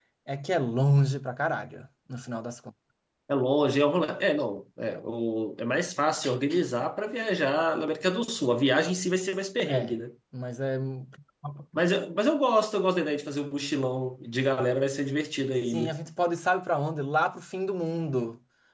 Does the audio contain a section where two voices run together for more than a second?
No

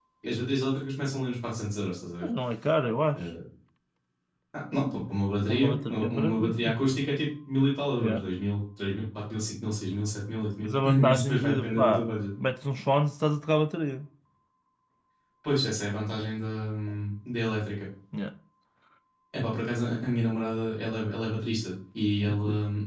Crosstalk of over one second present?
Yes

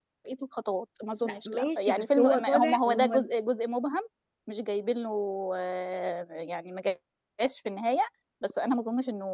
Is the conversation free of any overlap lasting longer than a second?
No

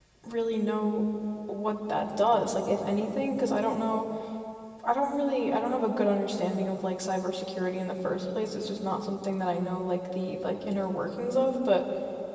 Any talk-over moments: No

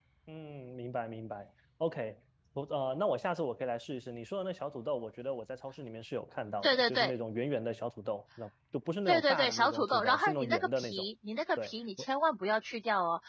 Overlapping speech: Yes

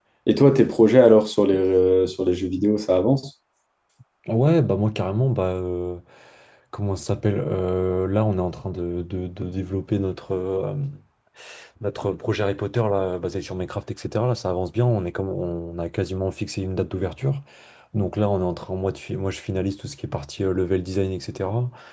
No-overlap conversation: Yes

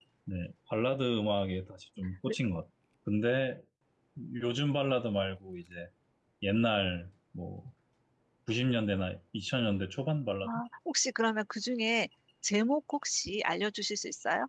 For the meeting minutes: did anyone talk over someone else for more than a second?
No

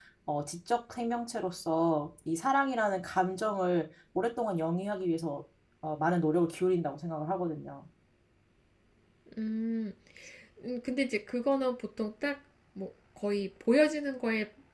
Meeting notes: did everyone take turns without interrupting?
Yes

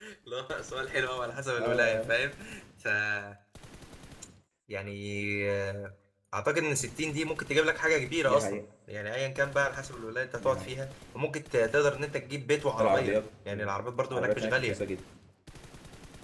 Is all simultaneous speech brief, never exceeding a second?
No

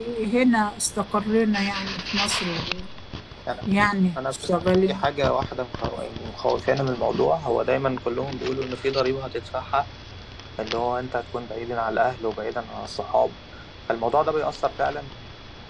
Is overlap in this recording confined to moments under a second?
Yes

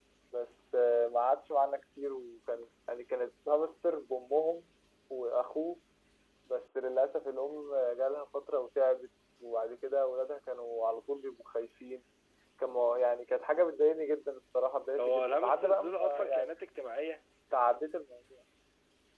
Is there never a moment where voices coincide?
No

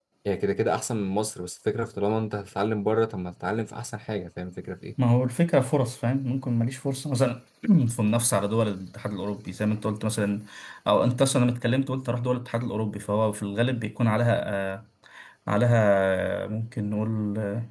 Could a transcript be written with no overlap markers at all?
Yes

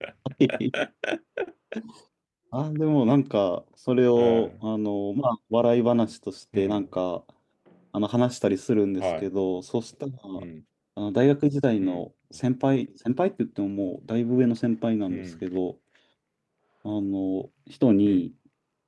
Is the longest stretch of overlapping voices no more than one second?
Yes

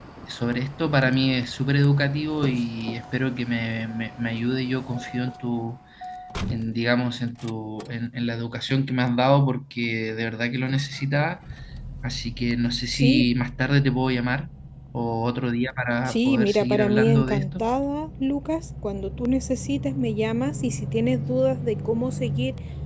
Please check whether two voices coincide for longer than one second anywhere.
Yes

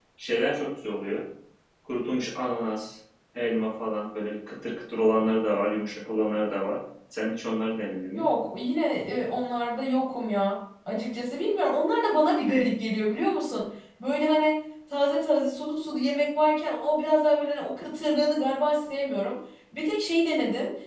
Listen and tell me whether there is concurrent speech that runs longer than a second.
No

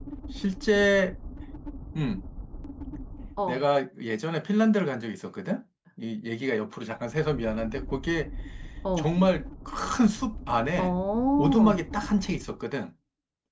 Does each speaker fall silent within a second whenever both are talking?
Yes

